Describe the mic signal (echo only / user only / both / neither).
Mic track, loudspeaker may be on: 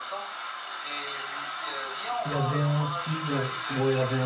both